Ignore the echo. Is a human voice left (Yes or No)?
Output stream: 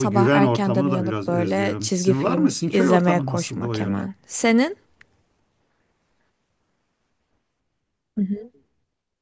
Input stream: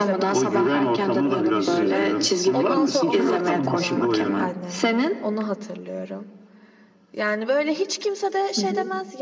Yes